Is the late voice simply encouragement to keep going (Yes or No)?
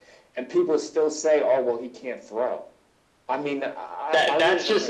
No